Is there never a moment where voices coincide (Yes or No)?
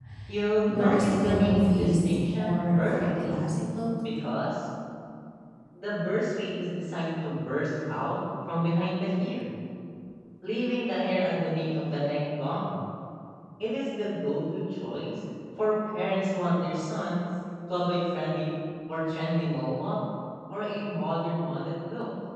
No